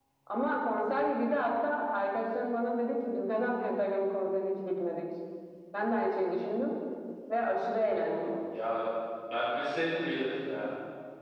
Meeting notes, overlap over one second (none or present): none